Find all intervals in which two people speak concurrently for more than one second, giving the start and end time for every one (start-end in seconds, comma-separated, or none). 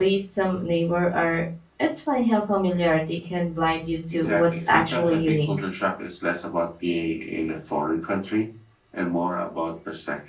4.1-5.5